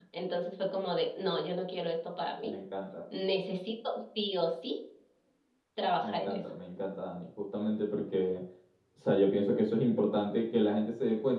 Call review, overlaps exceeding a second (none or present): none